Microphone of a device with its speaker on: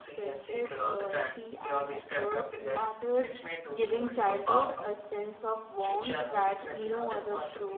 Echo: present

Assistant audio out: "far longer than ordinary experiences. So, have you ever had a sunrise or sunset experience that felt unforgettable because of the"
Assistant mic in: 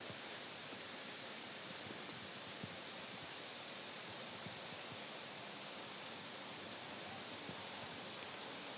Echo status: none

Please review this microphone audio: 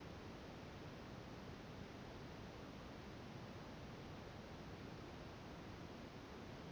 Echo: none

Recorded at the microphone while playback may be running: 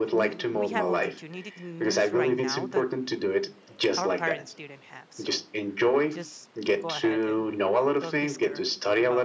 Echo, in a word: present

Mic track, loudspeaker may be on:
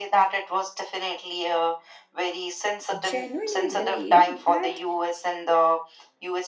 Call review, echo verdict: present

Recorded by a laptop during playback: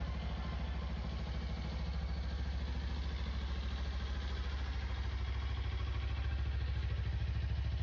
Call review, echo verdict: none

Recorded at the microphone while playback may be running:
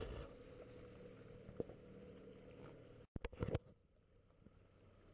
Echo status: none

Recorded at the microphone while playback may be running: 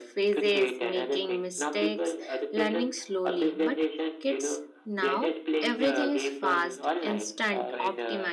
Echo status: present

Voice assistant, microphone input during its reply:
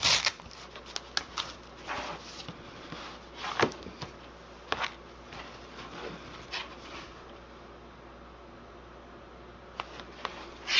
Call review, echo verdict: none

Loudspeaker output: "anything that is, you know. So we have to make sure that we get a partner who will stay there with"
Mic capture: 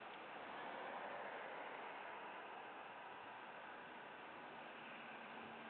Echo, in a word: none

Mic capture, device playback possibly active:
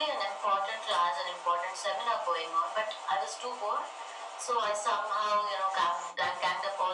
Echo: present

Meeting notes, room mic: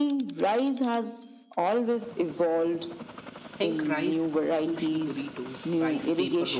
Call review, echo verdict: present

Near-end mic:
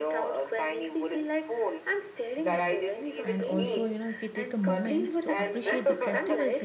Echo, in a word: present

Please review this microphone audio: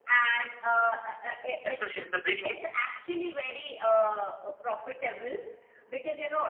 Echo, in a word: present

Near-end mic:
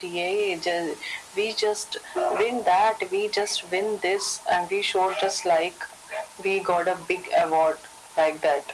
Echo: present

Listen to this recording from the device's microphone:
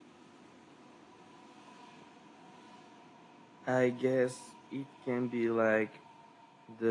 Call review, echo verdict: none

